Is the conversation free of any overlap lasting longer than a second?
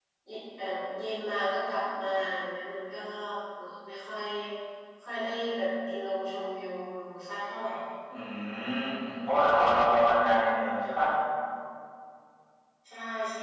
Yes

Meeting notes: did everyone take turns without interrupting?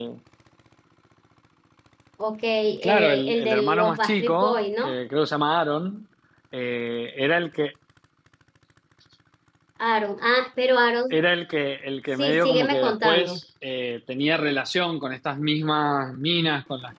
No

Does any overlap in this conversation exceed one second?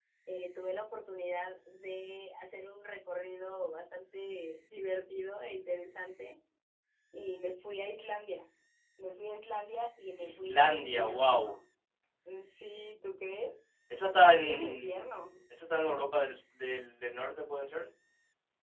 Yes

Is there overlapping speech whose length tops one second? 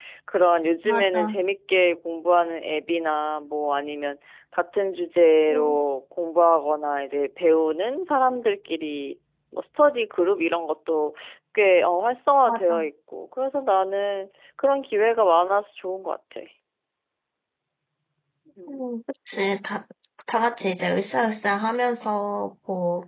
No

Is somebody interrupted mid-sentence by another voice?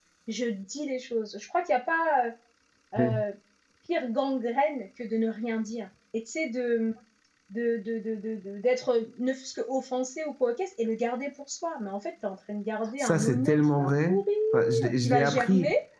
Yes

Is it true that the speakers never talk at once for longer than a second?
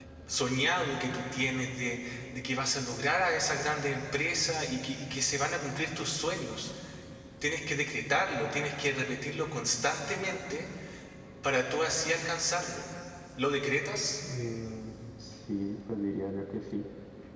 Yes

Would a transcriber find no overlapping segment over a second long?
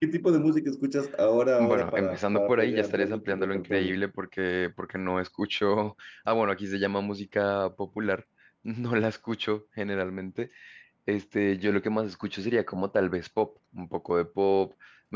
No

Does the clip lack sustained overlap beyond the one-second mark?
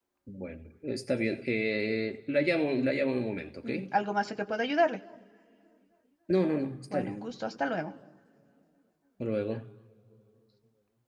Yes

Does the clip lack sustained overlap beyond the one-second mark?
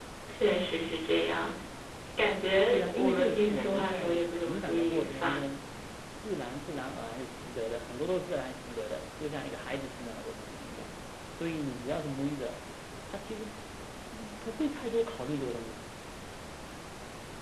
No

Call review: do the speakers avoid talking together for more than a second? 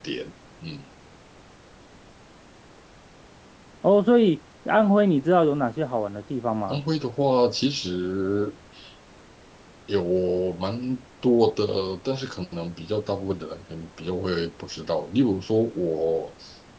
Yes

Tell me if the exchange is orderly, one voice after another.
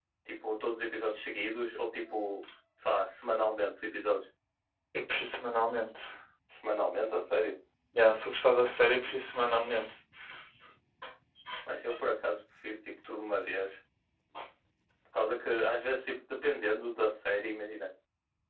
Yes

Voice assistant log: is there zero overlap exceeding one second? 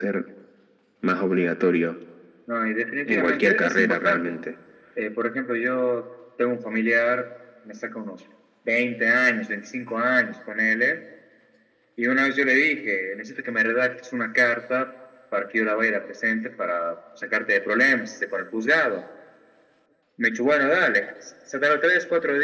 No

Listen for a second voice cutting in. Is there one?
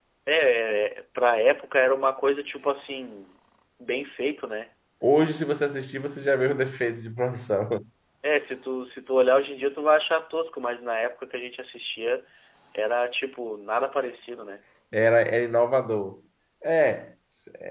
No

